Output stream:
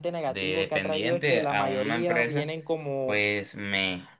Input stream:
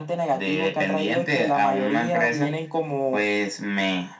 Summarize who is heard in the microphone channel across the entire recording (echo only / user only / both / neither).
echo only